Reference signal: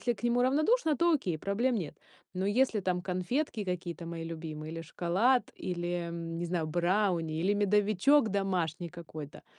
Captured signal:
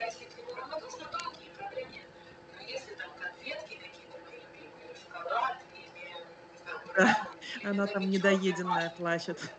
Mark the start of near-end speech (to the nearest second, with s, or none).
7 s